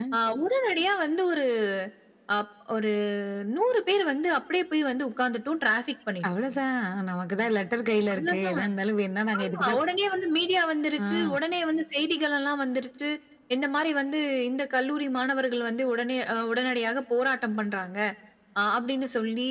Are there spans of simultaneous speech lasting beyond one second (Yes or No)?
No